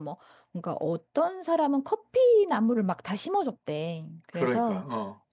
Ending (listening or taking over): listening